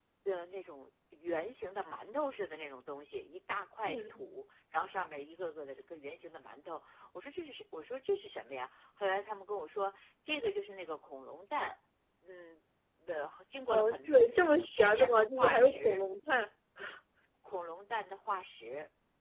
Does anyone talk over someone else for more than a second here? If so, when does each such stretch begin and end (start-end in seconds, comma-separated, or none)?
13.7-16.0